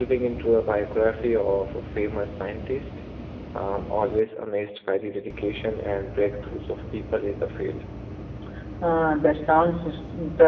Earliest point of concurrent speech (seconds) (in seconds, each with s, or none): none